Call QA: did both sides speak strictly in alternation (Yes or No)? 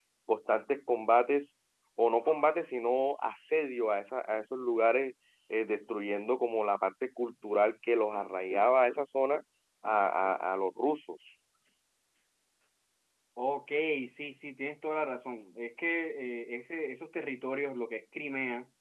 Yes